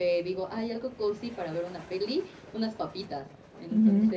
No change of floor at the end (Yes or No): Yes